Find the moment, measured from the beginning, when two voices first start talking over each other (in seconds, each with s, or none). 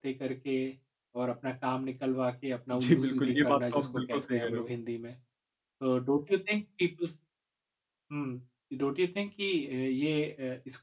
2.7 s